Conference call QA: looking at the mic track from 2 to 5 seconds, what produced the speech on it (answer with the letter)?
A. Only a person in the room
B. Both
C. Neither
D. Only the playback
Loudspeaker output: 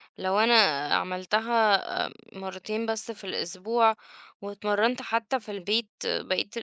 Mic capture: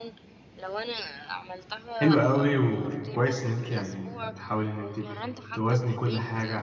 B